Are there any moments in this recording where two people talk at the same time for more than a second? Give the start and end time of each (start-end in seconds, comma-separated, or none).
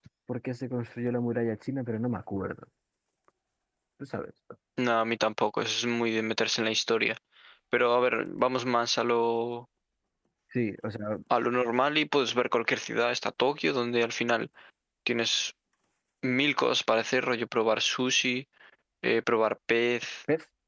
none